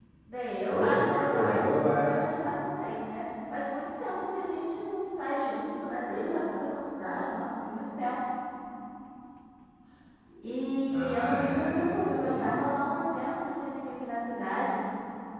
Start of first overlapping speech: 0.7 s

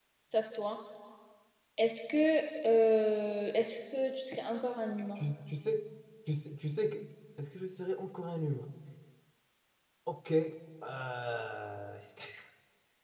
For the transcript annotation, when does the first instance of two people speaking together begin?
none

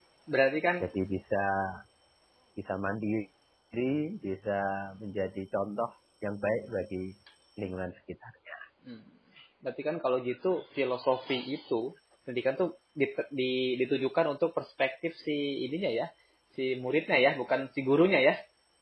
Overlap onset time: none

